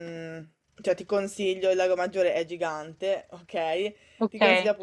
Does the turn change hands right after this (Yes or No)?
No